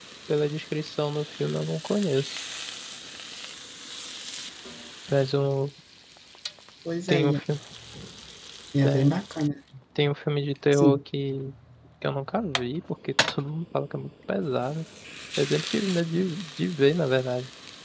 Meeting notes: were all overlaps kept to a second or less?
Yes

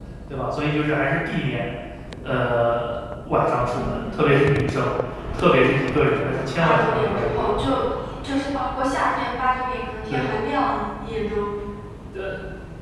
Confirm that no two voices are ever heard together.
No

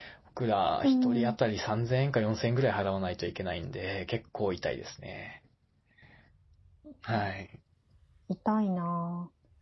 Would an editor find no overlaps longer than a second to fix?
Yes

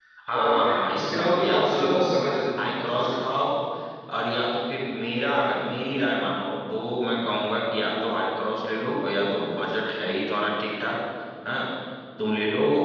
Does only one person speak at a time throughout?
No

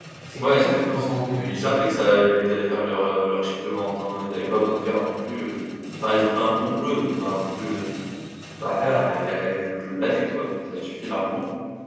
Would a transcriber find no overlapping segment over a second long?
No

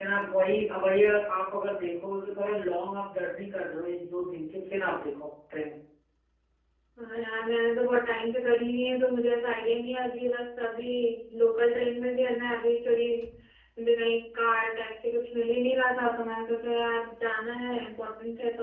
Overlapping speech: No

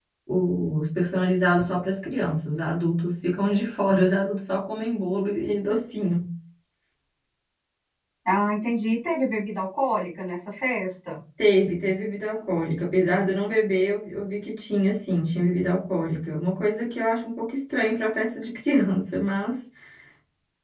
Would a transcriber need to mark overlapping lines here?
No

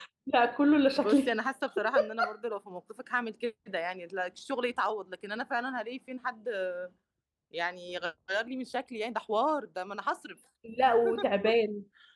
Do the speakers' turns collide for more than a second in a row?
No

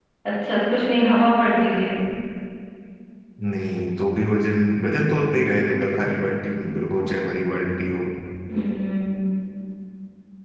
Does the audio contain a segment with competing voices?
No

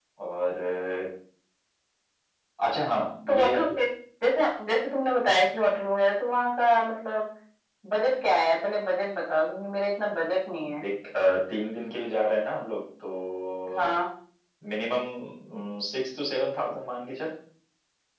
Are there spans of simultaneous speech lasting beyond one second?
No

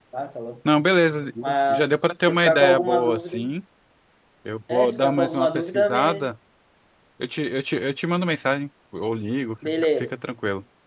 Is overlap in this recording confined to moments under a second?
No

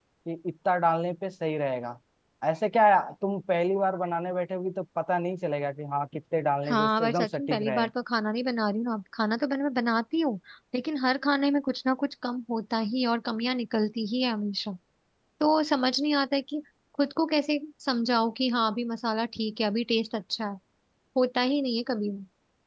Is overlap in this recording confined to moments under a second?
No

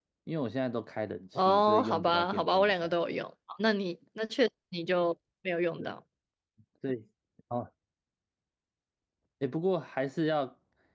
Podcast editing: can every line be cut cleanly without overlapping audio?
No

